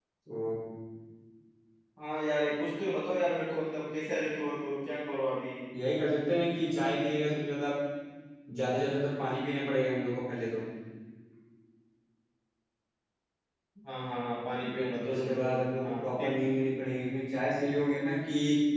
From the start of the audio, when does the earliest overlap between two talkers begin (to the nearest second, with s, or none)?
15 s